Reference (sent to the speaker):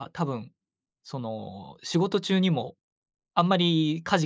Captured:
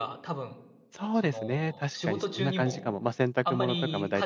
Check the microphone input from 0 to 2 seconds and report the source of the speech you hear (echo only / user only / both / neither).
both